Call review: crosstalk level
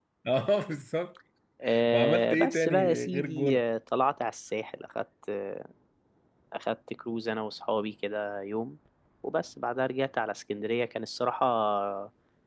present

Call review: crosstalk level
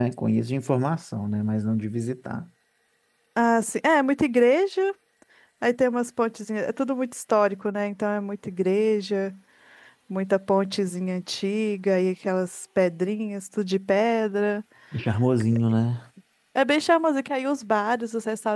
none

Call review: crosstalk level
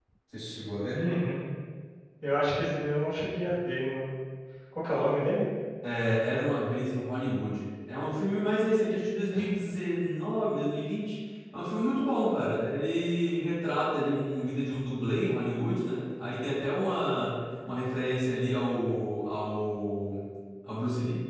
none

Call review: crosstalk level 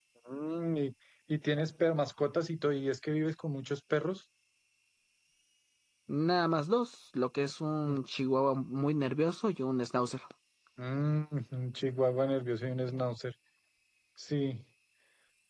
none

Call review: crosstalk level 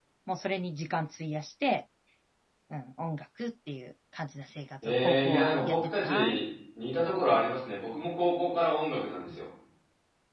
present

